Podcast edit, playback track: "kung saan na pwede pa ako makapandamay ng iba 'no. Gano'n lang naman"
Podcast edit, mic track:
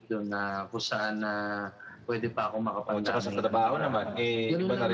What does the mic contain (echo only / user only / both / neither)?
both